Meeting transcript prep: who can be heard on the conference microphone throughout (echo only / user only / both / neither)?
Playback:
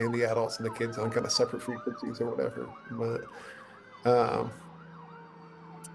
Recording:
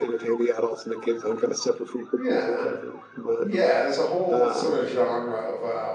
both